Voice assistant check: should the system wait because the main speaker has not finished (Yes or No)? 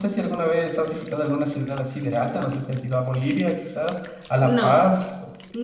No